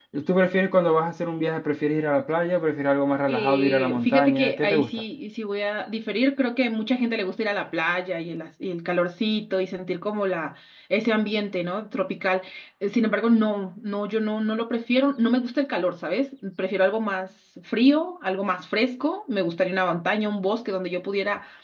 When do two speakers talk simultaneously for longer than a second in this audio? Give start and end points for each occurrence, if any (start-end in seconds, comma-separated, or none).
3.3-4.9